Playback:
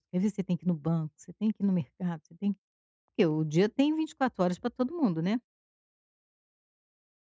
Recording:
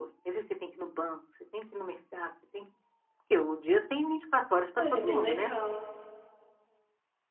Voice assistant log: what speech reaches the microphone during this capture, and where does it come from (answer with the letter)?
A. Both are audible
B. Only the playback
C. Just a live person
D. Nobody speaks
A